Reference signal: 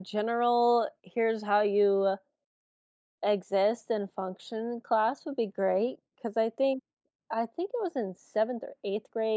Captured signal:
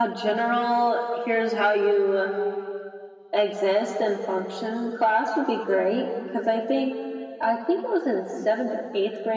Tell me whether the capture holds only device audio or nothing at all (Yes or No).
Yes